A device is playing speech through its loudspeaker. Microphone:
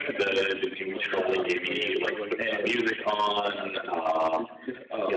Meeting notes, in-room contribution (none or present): present